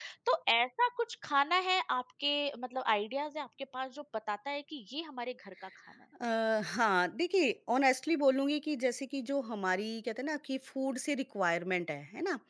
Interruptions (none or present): none